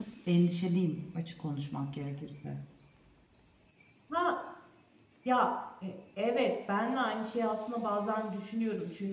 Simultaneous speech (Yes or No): No